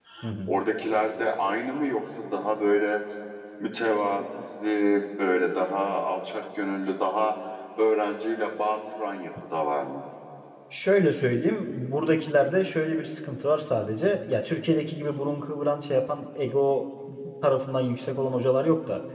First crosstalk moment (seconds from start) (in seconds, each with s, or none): none